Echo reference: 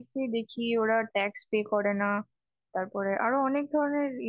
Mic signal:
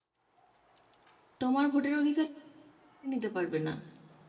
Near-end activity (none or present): present